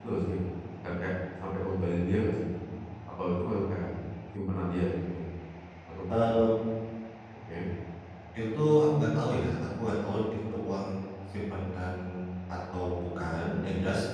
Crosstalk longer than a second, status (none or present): none